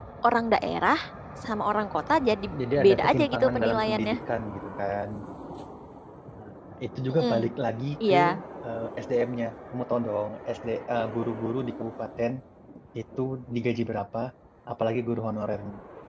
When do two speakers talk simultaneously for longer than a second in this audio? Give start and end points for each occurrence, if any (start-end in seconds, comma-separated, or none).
2.8-4.1